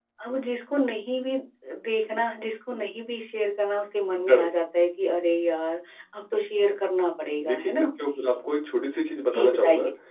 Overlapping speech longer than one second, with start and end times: none

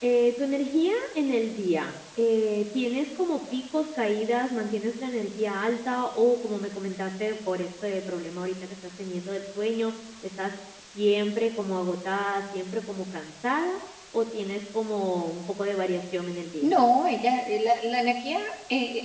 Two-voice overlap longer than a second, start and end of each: none

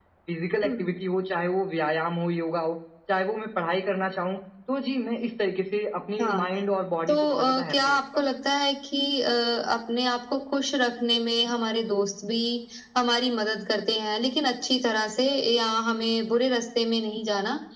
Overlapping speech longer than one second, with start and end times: 7.1-8.3

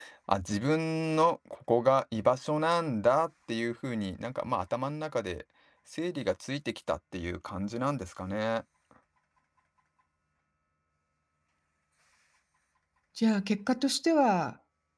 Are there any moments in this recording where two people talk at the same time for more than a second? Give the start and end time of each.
none

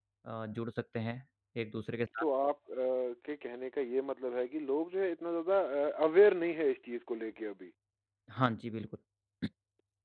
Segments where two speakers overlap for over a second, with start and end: none

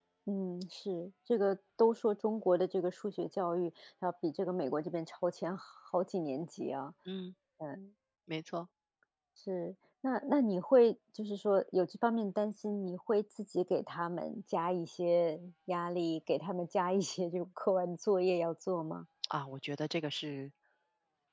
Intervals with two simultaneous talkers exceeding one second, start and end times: none

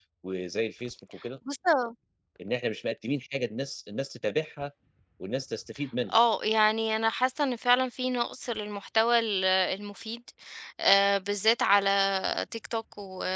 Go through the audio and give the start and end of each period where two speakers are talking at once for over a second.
none

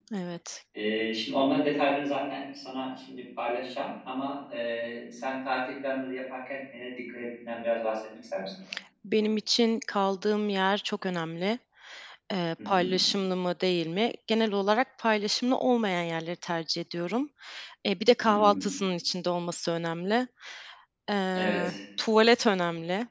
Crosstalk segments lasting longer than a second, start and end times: none

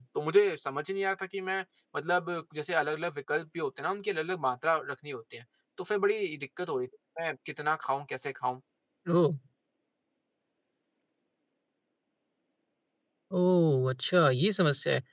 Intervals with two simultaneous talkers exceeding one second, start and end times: none

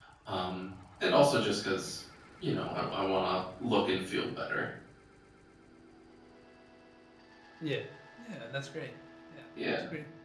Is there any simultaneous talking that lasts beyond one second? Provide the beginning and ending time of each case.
none

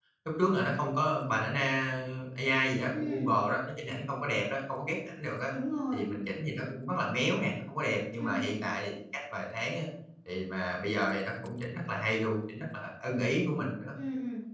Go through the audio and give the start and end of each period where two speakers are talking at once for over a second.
none

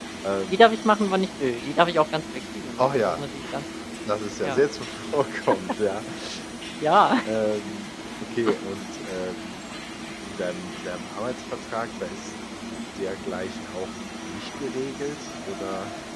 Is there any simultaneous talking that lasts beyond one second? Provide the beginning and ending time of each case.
none

